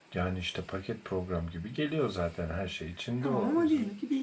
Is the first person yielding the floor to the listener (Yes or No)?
Yes